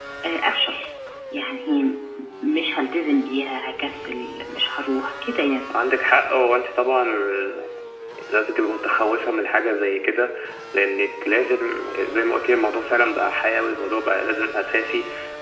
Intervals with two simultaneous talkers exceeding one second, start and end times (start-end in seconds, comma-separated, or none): none